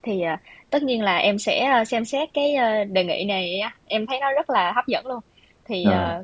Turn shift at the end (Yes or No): No